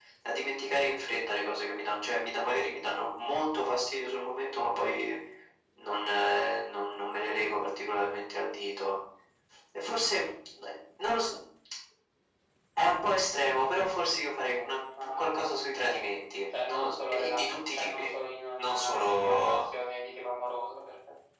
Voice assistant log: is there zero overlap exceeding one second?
No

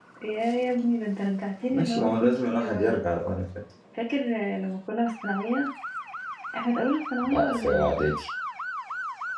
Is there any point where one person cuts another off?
Yes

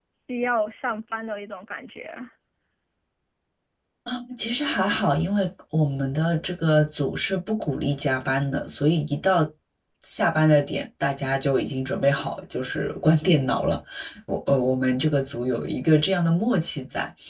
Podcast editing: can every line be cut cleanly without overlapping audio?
Yes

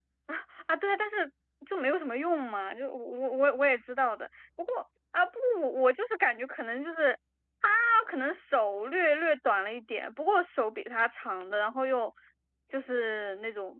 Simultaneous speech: No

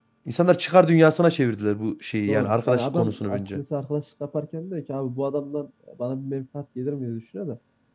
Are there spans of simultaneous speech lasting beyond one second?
Yes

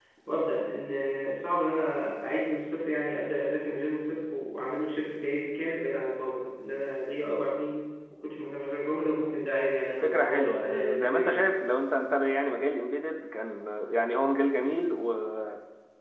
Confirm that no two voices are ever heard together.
No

